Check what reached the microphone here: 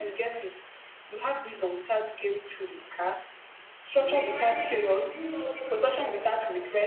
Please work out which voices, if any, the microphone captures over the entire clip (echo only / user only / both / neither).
both